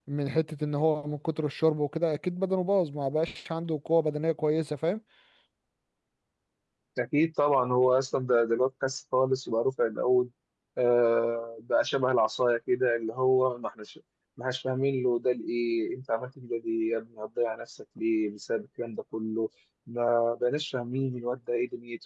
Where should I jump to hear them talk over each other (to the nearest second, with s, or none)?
none